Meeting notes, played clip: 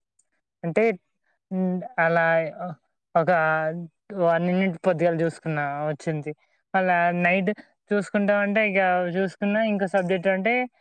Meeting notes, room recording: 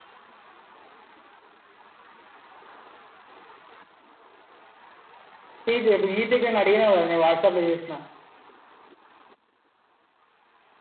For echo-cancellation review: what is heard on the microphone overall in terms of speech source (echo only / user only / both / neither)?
user only